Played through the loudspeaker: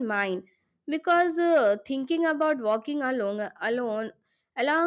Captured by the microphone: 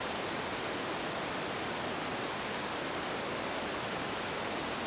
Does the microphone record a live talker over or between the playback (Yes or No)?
No